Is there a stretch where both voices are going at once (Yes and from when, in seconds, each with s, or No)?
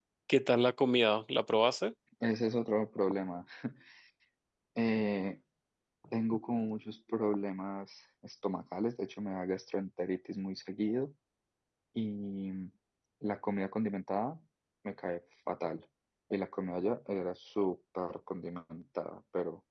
No